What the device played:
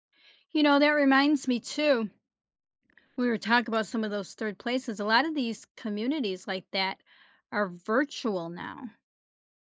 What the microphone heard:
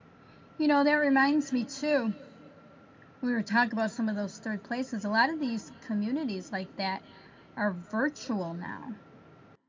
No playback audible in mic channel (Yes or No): No